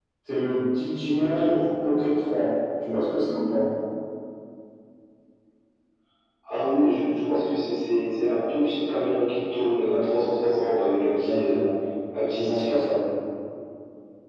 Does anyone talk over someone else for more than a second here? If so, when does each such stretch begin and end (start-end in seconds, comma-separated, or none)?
none